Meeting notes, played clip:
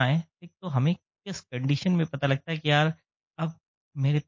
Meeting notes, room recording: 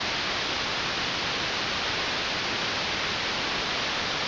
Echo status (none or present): none